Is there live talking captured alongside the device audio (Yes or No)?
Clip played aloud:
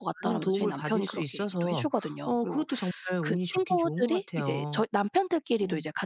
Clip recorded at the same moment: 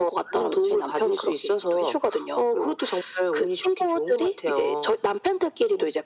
No